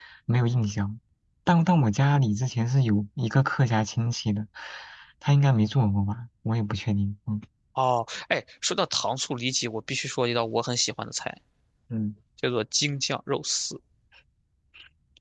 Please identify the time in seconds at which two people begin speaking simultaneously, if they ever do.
none

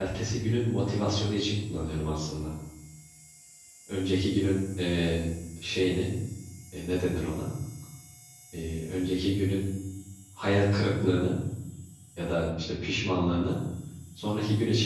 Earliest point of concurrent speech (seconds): none

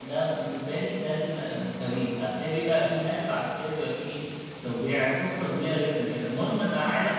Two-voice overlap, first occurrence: none

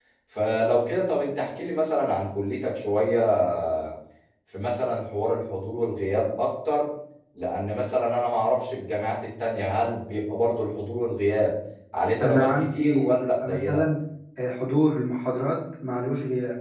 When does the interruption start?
12 s

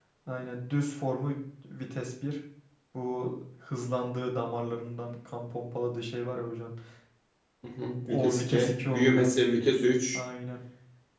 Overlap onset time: 8 s

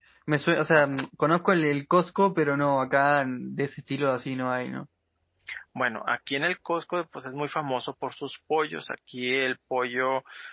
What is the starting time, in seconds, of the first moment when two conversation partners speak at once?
none

